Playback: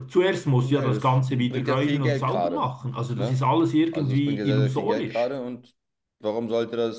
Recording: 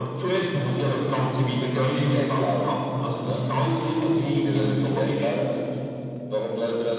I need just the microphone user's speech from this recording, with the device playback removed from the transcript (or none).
none